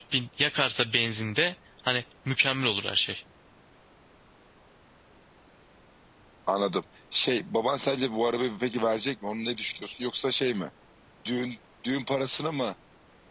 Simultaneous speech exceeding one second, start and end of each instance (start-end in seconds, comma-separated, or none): none